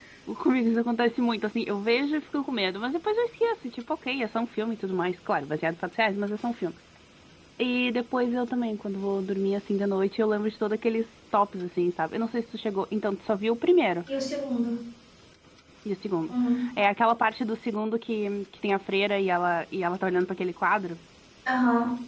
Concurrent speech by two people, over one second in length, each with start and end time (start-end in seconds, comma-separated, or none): none